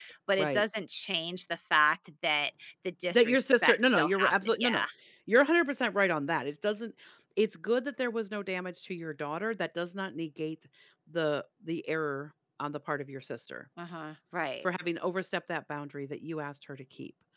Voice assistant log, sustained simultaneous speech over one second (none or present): present